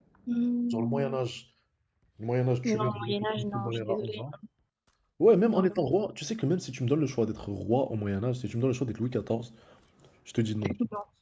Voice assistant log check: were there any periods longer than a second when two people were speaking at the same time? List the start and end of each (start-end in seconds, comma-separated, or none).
2.6-4.2